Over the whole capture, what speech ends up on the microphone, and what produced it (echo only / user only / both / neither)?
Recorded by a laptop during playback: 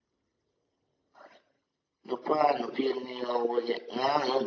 echo only